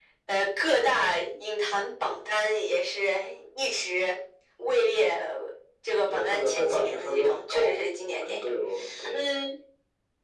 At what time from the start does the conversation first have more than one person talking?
6.1 s

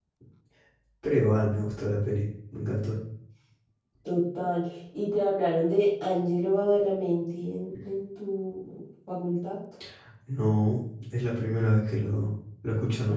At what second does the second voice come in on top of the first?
none

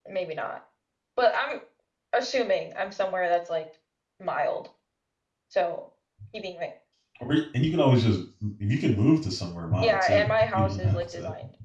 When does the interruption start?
9.8 s

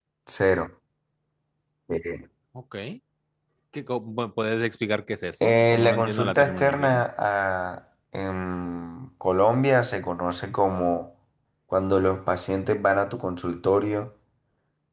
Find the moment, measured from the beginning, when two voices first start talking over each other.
5.4 s

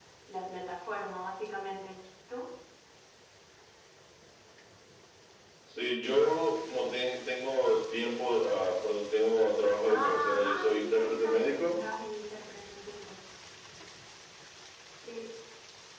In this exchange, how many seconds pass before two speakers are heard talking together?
9.8 s

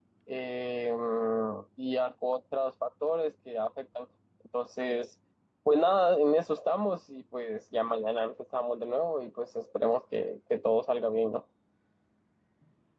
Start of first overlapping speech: none

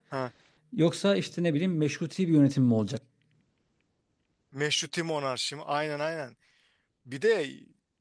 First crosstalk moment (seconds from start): none

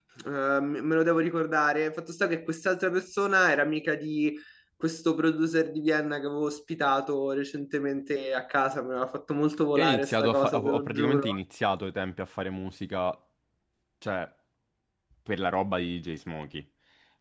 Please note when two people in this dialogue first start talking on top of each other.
9.8 s

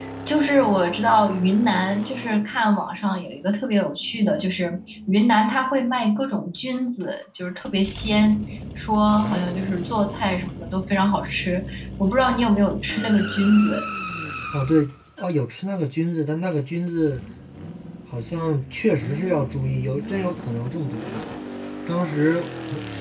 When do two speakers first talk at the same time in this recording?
none

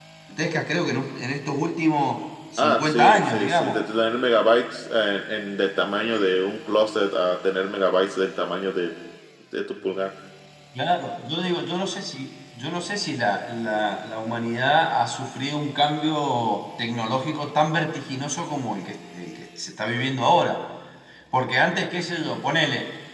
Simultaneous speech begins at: 2.6 s

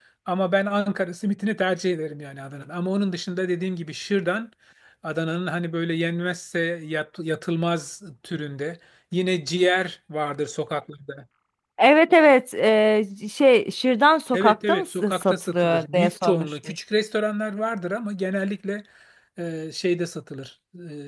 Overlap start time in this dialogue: 14.3 s

